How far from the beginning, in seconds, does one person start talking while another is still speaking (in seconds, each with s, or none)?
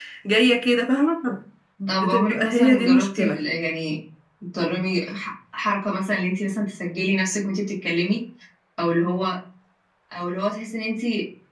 1.9 s